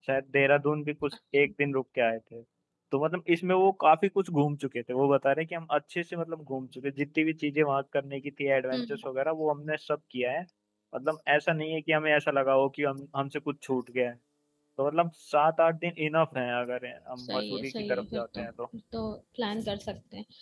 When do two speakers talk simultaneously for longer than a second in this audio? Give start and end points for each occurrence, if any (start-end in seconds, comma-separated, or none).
17.2-18.5